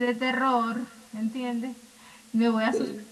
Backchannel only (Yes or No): Yes